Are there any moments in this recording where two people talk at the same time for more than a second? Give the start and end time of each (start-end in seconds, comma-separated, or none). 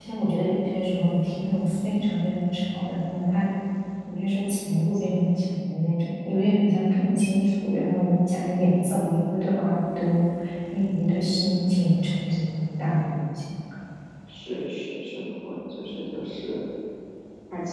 none